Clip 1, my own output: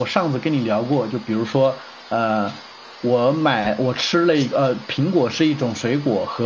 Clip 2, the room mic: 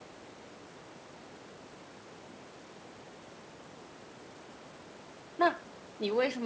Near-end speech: present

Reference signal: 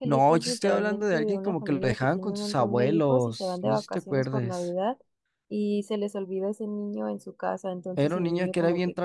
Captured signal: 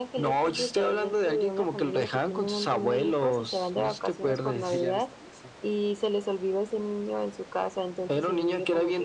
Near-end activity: present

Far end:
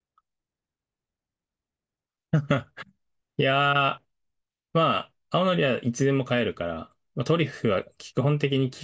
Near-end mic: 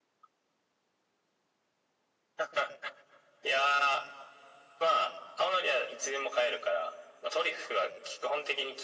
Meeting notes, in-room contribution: none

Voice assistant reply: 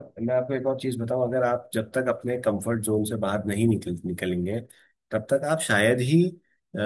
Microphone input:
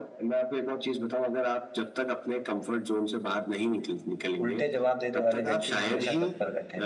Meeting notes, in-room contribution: present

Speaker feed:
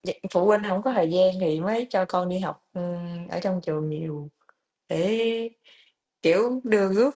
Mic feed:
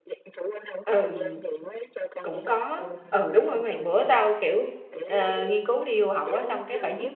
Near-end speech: present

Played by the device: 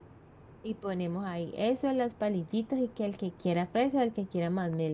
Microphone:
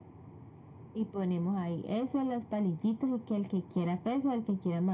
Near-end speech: none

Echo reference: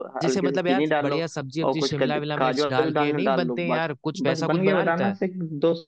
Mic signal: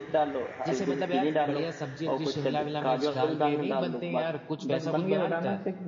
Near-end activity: none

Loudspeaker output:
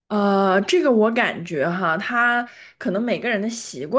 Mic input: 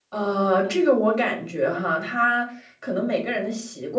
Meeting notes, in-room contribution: none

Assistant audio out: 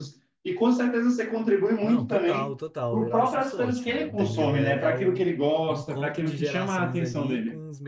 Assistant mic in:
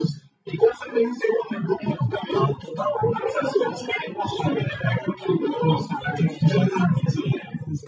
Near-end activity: none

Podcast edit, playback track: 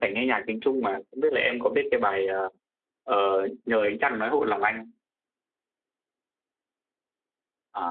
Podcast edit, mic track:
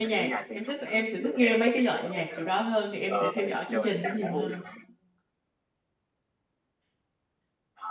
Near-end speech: present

